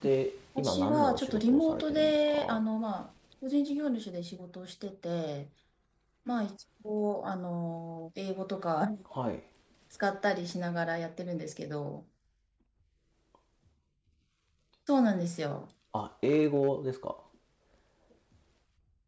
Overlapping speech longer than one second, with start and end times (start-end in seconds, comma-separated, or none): 0.6-2.6